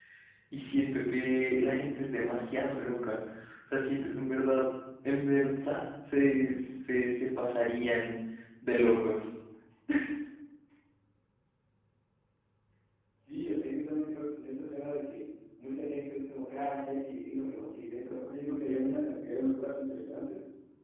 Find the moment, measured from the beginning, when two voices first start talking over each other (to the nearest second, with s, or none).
none